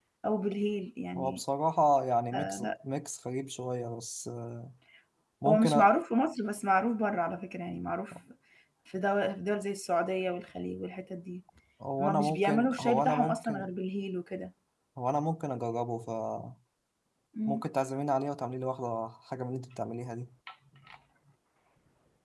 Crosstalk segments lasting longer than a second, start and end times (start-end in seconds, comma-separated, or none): 12.0-13.7